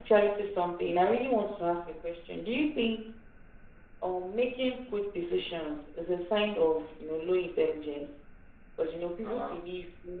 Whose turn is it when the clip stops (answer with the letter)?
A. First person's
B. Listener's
A